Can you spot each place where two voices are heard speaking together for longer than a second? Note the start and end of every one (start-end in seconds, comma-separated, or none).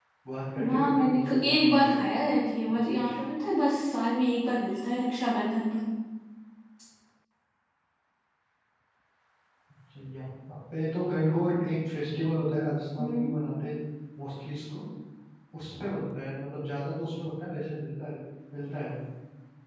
0.7-2.0